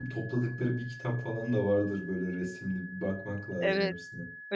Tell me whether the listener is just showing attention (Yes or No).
No